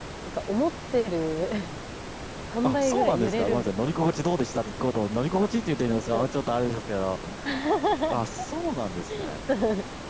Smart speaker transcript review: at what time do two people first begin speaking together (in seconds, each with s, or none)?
2.6 s